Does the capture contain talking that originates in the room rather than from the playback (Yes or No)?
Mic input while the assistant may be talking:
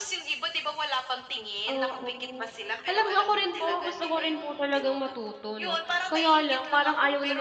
Yes